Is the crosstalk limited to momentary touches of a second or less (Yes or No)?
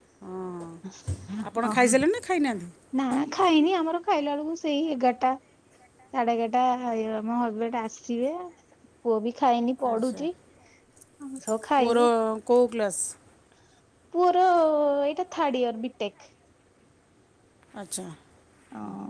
Yes